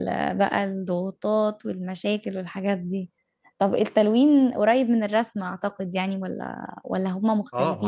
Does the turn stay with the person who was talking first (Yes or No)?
No